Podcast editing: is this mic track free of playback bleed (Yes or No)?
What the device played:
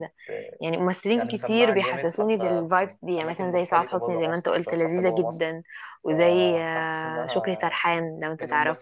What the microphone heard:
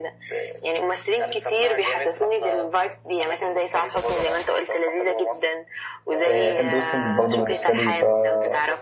No